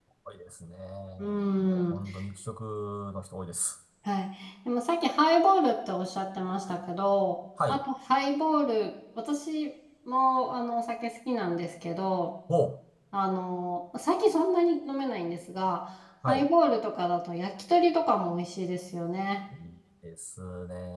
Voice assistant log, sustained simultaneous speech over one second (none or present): none